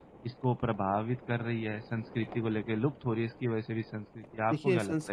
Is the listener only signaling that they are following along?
No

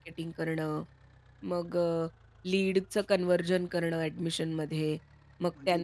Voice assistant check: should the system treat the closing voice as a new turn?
No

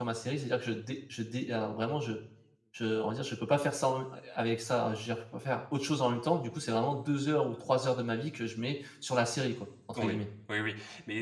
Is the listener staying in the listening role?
No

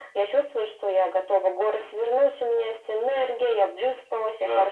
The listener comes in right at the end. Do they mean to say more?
No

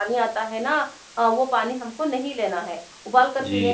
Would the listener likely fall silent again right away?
Yes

